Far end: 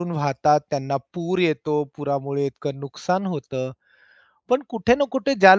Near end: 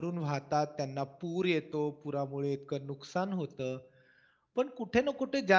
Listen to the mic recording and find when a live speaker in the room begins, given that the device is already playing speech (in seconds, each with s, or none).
none